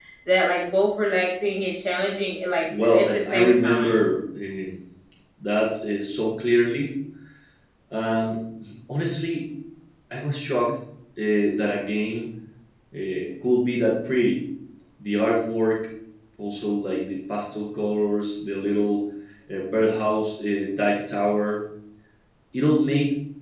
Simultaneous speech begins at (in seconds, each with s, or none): 2.7 s